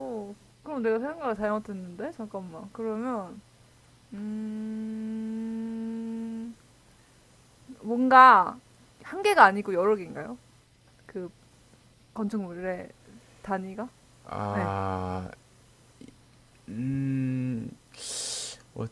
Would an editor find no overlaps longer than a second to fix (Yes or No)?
Yes